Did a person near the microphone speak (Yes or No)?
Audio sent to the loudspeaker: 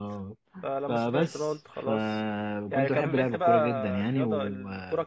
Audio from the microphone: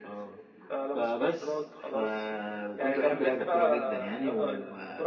No